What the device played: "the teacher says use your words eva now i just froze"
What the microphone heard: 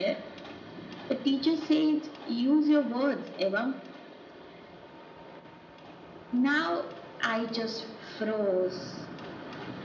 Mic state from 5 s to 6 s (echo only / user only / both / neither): neither